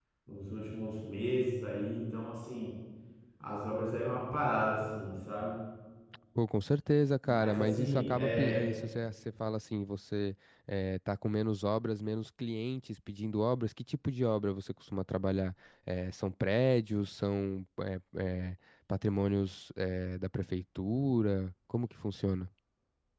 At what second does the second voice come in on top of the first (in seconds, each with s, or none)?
7.2 s